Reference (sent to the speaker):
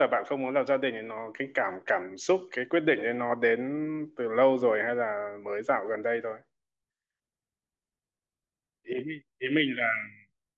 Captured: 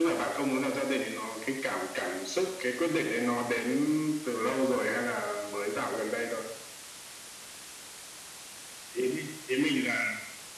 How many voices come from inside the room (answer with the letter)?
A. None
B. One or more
A